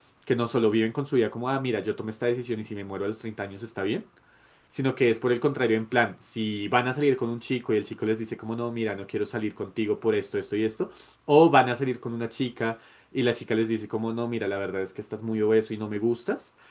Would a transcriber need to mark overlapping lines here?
No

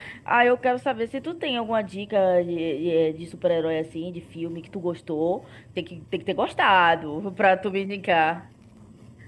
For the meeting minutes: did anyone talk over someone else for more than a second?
No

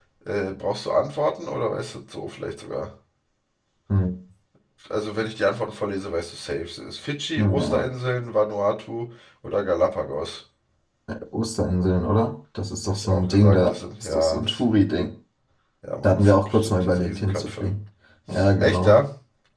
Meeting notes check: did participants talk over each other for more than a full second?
Yes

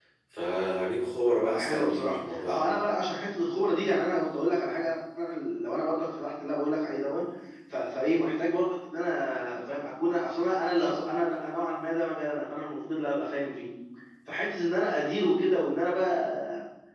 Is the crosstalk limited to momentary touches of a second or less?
No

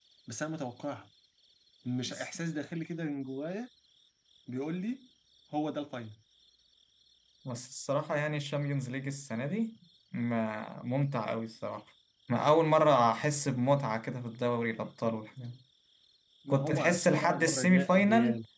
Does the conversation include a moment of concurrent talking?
Yes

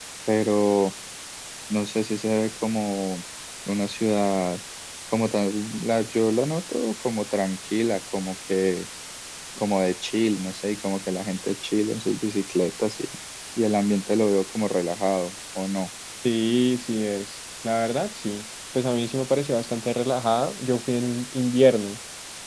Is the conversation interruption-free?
Yes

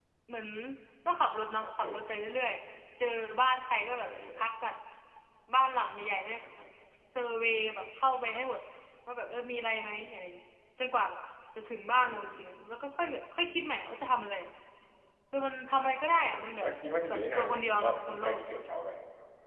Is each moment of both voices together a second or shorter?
No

